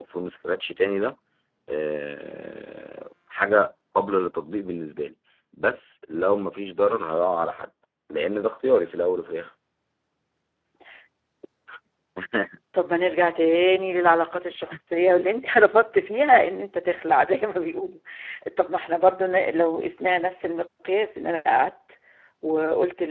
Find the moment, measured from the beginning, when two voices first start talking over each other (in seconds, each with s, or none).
none